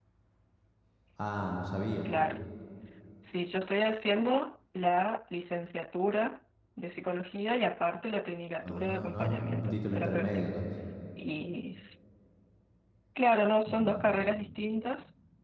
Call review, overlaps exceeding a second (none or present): present